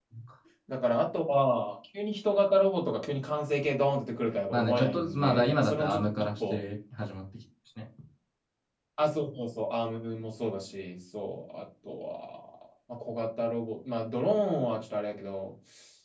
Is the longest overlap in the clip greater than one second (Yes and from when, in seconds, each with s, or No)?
Yes, from 4.5 s